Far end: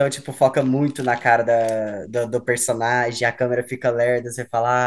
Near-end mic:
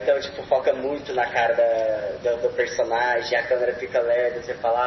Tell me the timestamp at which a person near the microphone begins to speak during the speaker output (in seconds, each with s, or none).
none